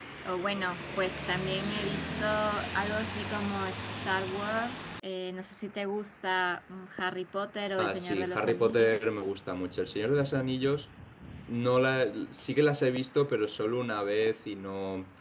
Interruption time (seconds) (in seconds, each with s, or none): 7.8 s